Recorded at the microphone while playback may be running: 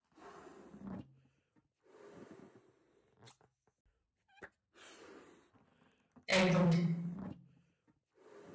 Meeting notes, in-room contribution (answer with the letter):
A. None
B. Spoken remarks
B